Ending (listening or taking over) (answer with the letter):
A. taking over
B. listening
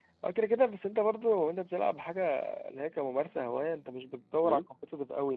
B